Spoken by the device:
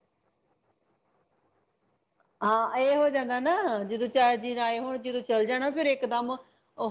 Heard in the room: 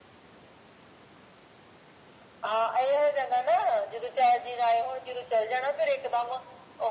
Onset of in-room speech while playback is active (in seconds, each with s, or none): none